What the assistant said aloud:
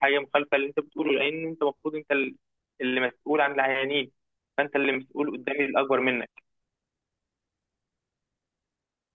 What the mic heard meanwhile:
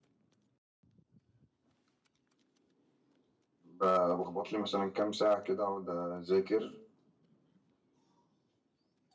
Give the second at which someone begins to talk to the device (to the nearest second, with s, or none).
4 s